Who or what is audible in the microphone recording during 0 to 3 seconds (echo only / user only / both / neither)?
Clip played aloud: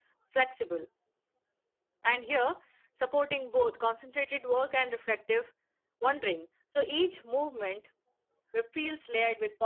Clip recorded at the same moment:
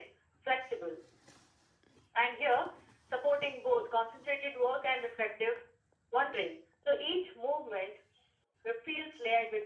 echo only